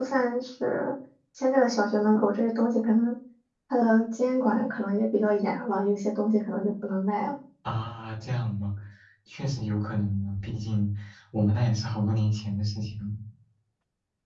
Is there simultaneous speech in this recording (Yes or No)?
No